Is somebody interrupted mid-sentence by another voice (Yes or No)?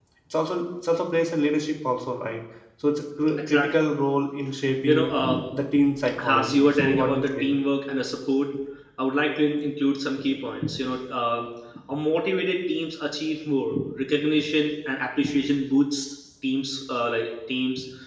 Yes